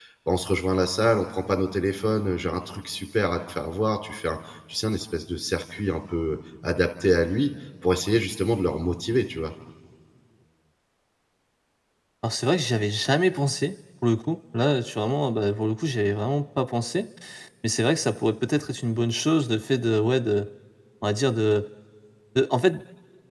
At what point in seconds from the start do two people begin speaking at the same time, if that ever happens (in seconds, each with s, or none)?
none